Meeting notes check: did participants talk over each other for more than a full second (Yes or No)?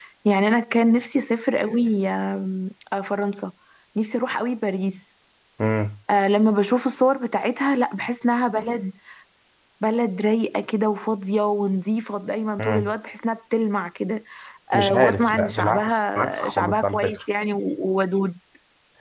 Yes